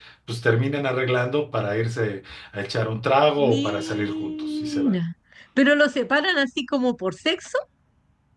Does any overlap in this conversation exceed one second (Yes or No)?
Yes